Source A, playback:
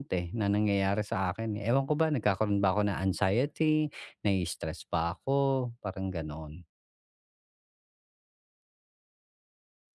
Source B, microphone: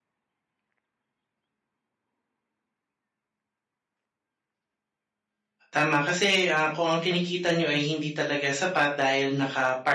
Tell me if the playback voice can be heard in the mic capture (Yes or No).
No